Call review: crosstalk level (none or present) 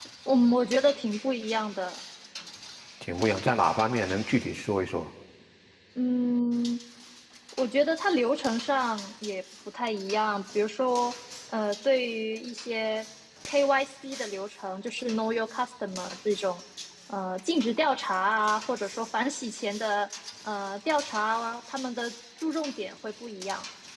none